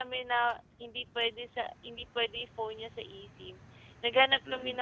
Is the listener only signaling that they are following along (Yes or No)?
Yes